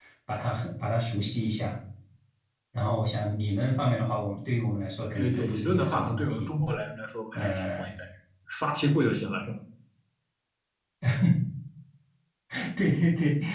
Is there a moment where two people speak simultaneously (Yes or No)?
Yes